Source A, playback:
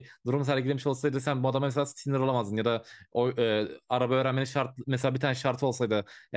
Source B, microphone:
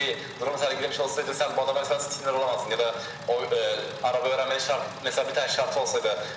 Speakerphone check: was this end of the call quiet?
Yes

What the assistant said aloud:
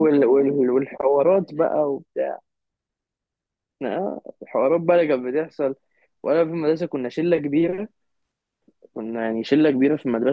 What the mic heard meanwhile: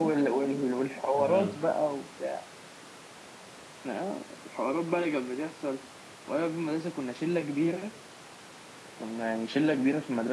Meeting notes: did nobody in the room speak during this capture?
No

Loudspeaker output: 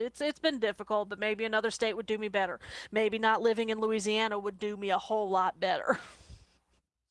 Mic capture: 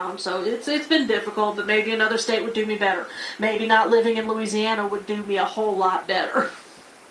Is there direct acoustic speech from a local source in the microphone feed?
No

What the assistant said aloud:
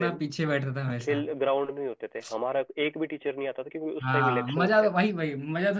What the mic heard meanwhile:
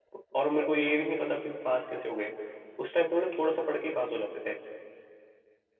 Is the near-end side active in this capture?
Yes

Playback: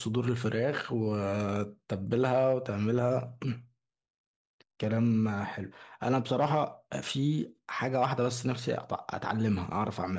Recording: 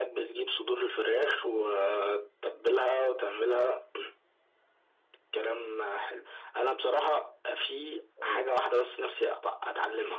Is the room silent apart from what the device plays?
No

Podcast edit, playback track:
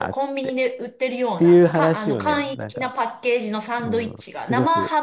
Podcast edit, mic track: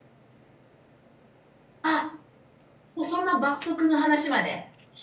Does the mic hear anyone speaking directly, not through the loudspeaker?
Yes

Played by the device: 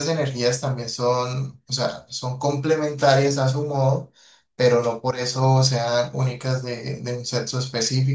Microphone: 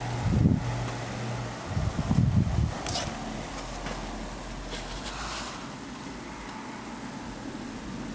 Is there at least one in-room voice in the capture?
No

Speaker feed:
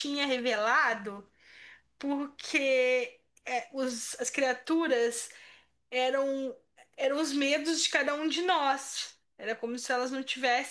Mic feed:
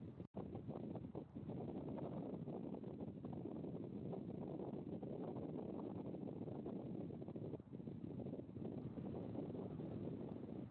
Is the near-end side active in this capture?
No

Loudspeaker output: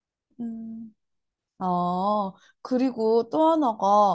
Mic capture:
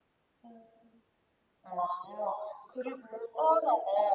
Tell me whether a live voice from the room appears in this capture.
No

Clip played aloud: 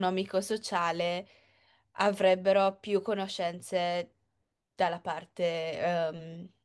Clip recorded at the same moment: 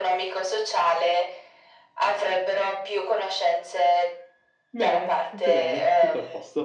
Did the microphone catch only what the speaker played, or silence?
No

